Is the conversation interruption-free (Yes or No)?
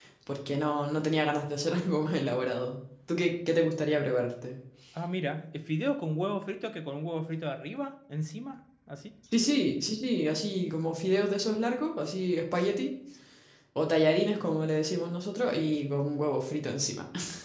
Yes